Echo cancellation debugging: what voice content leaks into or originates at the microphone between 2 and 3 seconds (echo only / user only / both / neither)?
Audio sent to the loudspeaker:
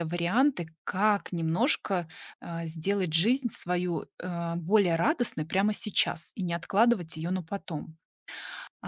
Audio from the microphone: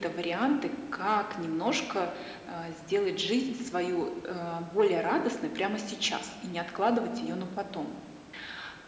echo only